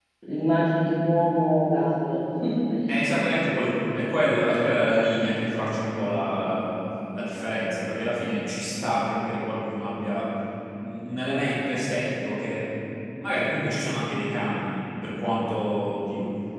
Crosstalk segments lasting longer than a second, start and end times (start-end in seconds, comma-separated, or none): none